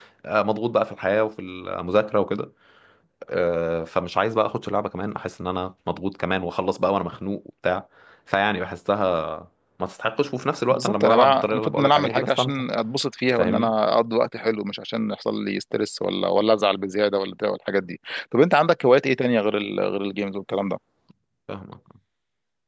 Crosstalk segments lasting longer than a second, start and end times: 10.7-12.6

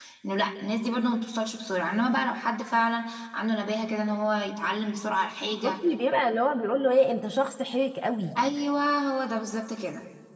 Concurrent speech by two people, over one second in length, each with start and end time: none

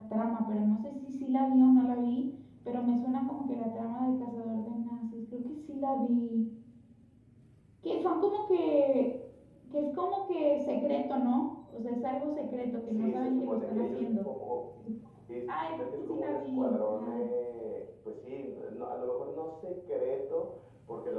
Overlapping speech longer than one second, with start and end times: 12.9-14.3, 15.5-17.3

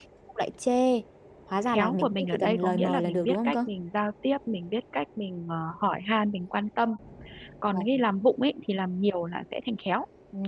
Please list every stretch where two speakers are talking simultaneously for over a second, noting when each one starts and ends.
1.7-3.5

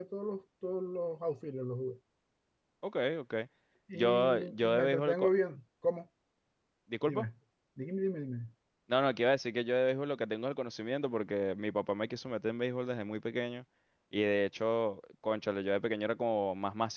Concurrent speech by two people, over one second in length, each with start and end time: 3.9-5.3

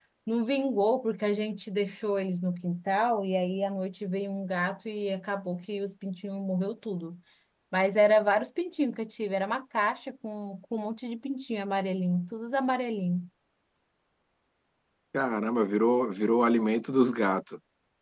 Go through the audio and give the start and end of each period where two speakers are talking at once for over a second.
none

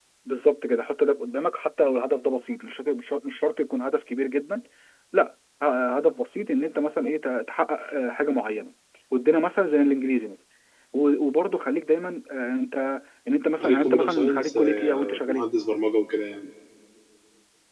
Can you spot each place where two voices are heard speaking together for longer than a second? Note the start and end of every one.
13.6-15.4

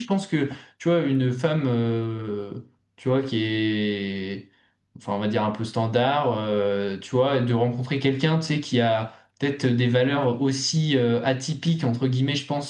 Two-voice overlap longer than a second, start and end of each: none

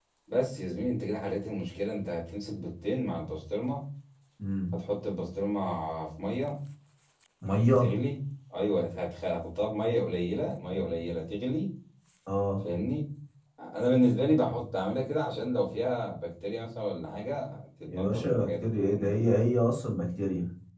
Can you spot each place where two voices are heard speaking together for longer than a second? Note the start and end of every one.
17.9-19.1

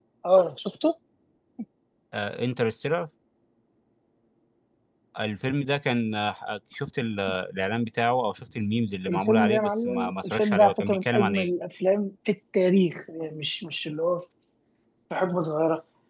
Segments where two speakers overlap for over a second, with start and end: 9.1-11.5

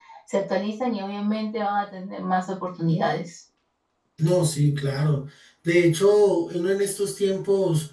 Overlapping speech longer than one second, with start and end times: none

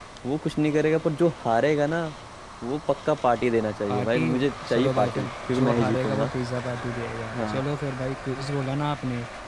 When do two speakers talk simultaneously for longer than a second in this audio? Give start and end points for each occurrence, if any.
4.7-6.3

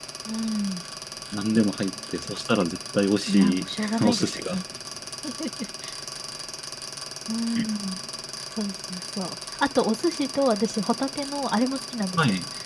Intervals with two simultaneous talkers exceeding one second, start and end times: 3.3-4.6

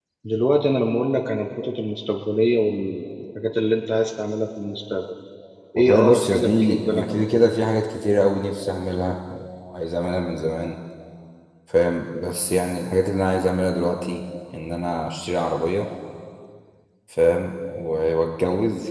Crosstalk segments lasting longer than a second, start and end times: 5.8-7.4

